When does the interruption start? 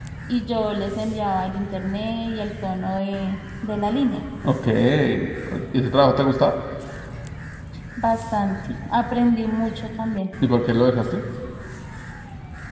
none

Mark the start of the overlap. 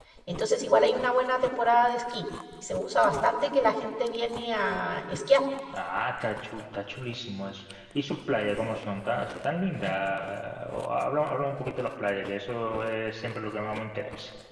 none

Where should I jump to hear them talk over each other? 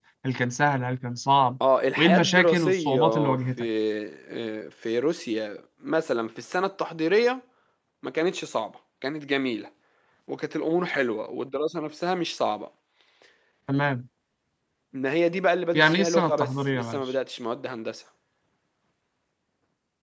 2 s

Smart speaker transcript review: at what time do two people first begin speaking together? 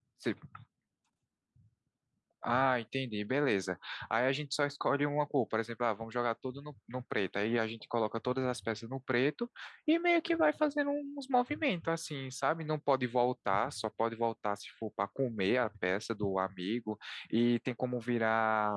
none

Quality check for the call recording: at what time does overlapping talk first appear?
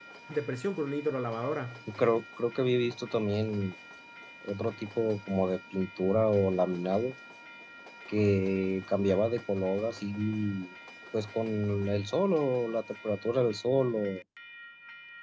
none

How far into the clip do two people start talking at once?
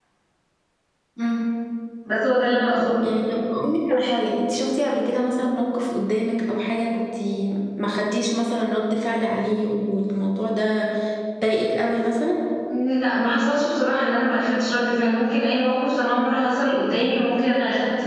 none

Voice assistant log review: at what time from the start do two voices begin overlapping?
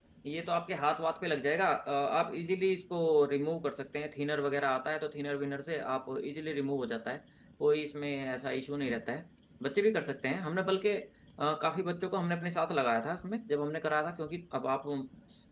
none

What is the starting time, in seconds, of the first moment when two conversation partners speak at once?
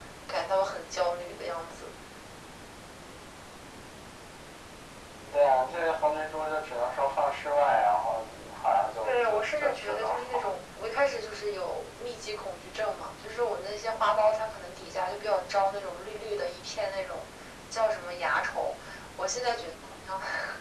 9 s

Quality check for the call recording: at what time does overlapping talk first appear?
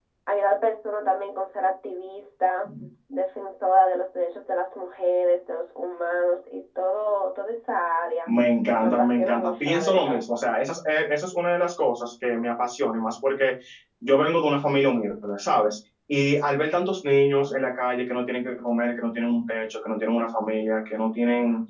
9 s

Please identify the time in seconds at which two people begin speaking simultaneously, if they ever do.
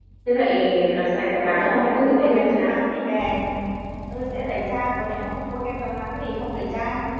1 s

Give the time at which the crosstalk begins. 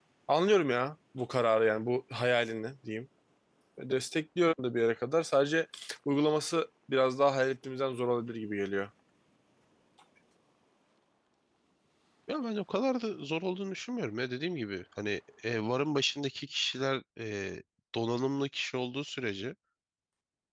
none

